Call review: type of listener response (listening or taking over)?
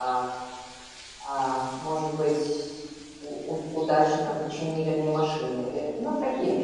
taking over